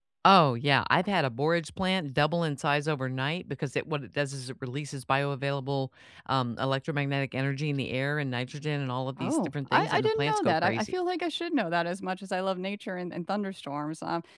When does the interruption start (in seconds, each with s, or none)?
9.2 s